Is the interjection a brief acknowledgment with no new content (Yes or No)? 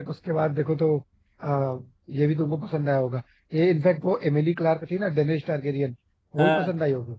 Yes